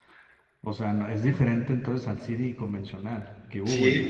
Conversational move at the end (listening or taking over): taking over